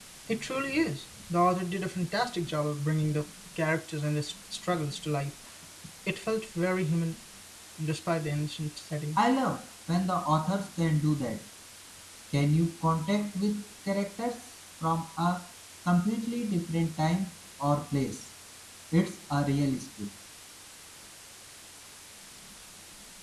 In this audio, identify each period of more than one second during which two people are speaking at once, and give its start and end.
none

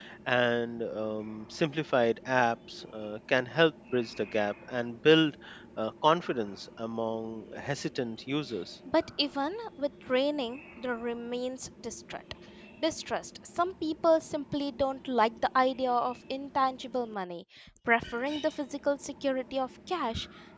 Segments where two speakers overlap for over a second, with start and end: none

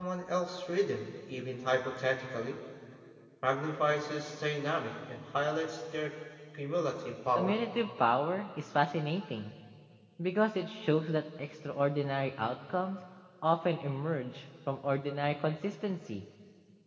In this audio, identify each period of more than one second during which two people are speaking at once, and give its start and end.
none

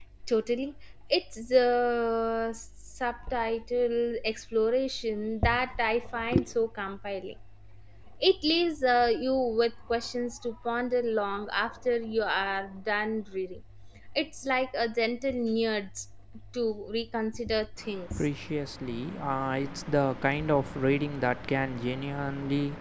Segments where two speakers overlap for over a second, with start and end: none

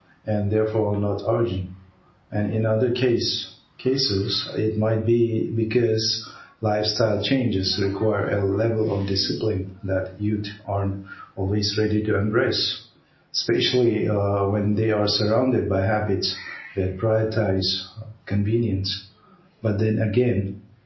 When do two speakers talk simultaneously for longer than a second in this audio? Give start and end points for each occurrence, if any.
none

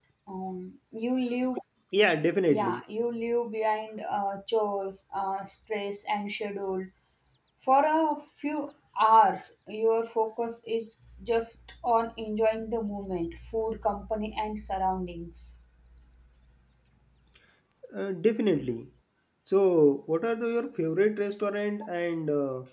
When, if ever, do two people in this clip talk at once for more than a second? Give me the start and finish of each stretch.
none

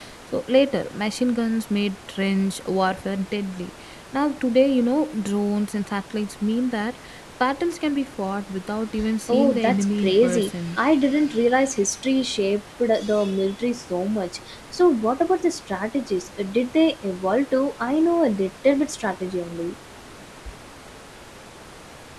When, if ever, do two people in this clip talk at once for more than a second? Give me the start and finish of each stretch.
9.3-10.8

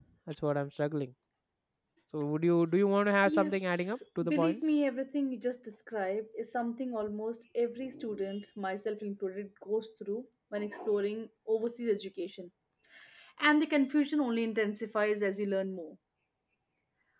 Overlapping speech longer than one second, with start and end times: 3.3-4.8

